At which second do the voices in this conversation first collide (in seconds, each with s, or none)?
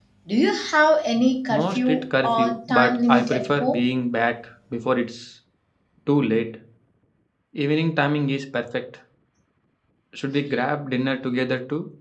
1.5 s